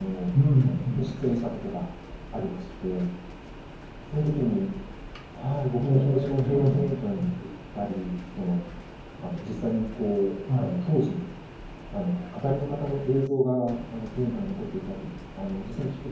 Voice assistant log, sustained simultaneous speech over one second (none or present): present